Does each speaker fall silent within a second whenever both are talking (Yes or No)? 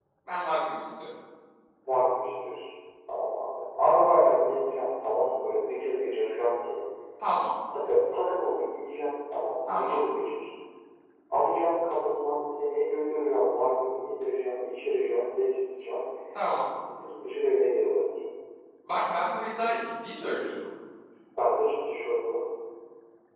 Yes